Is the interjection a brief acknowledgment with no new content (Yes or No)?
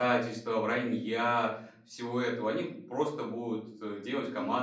Yes